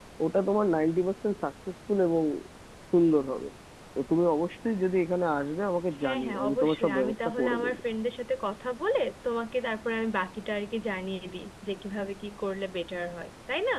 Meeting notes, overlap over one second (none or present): present